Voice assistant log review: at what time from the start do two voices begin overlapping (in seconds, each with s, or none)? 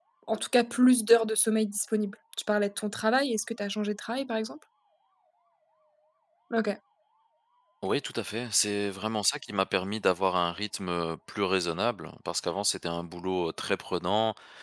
none